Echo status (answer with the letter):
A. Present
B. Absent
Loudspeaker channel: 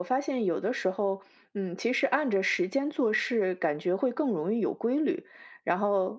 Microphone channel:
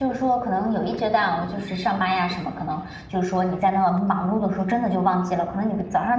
B